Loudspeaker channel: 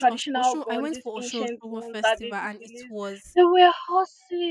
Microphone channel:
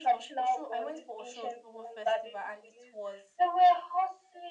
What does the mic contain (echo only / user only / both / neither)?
echo only